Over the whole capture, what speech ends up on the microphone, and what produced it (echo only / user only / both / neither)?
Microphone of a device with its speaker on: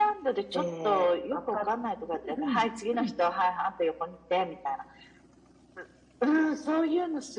both